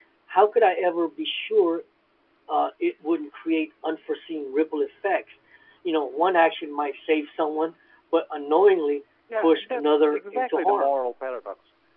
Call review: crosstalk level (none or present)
present